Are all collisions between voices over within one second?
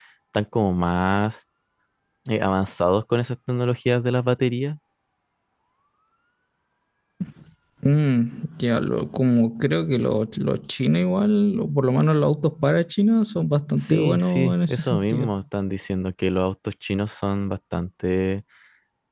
No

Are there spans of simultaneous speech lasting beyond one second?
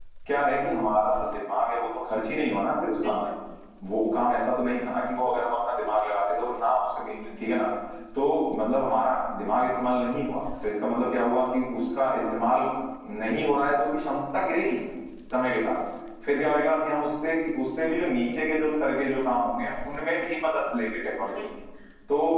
No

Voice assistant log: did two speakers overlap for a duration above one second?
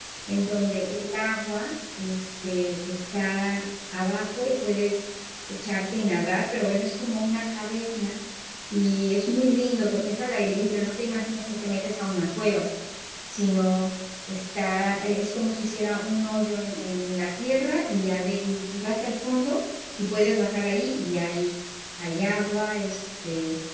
No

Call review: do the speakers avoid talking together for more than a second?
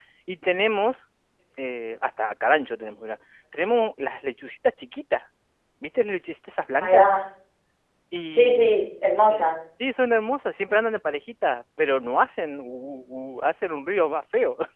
Yes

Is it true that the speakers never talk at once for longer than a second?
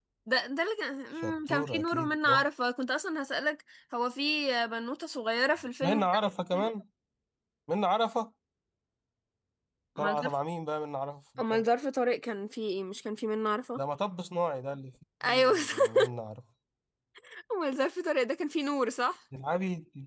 No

